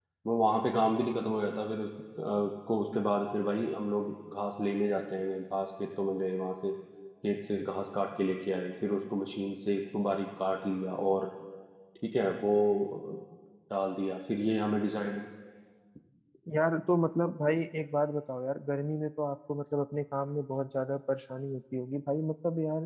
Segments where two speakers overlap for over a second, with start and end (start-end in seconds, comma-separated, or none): none